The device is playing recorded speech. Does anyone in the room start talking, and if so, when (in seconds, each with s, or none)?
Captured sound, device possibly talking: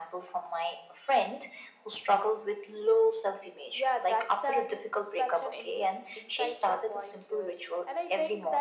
none